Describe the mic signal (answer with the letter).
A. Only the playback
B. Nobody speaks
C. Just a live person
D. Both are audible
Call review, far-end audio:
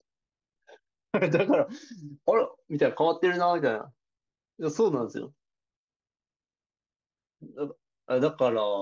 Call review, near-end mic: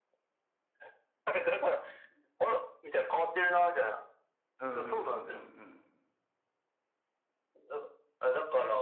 D